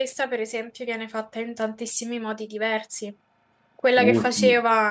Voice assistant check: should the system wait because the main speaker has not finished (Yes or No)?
Yes